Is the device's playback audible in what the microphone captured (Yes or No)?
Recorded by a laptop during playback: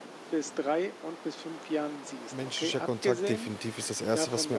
Yes